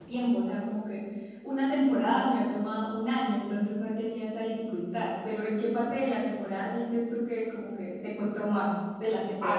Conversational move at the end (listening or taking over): taking over